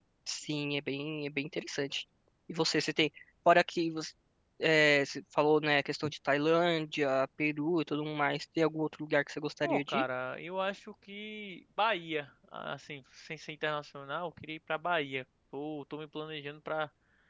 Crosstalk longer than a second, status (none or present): none